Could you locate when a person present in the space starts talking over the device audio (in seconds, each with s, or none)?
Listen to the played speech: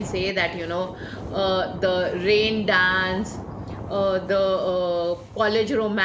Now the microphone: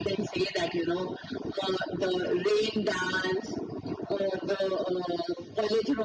none